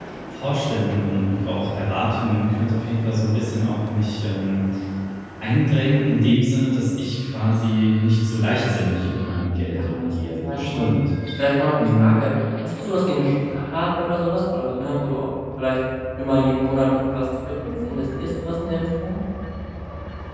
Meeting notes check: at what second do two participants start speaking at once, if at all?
9.7 s

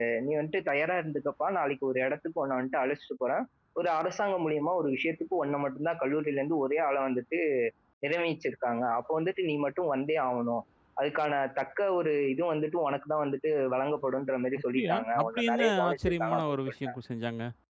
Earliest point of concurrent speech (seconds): 14.7 s

